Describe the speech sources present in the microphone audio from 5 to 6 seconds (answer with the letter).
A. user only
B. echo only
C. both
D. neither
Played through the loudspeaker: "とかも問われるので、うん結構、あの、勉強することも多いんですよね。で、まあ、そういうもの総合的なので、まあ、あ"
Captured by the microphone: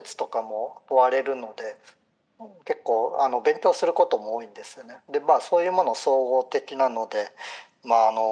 B